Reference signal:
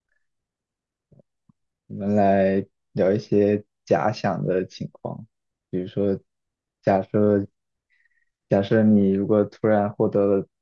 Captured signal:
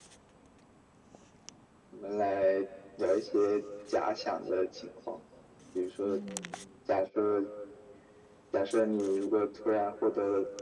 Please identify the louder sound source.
echo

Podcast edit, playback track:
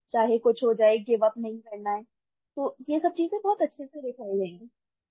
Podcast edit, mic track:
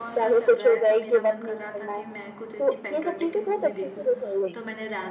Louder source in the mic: echo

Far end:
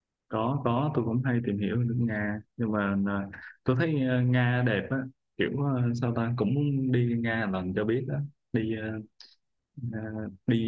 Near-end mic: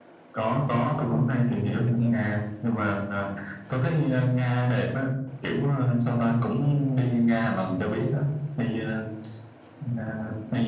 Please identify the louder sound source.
echo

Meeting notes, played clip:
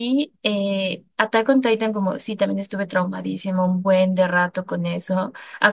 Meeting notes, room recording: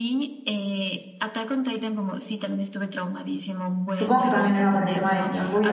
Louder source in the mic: user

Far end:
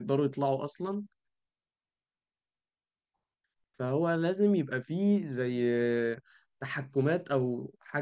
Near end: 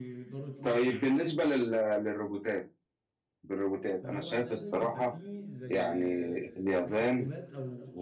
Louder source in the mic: user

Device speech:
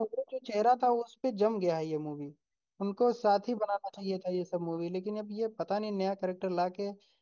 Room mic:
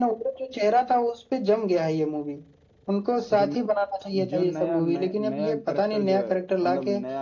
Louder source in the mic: echo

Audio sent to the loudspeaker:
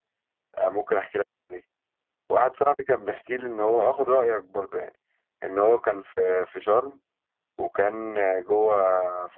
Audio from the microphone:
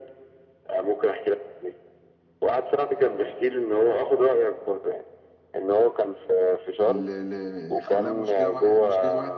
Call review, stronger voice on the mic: echo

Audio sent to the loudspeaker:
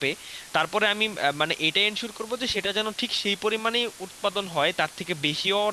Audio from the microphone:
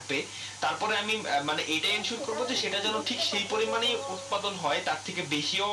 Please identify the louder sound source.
echo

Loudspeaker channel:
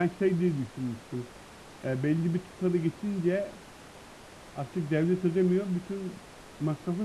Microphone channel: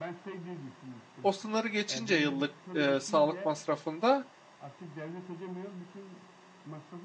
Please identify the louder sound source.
user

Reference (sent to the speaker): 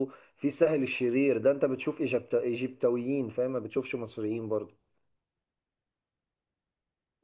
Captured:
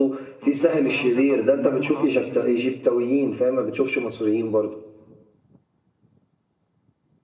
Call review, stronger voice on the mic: echo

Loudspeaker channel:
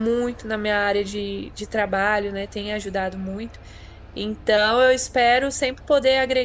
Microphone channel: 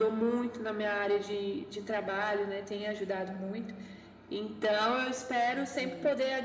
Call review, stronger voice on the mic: echo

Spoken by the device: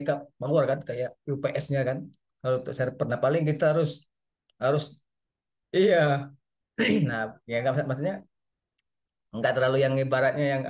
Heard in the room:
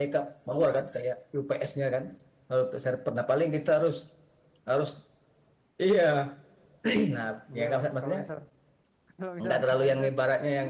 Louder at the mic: echo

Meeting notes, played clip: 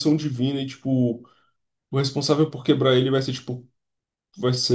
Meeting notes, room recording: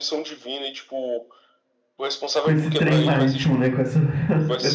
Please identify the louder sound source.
user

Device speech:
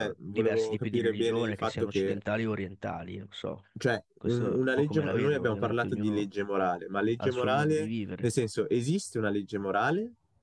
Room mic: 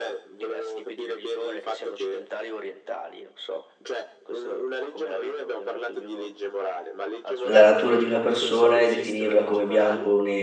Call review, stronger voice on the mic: user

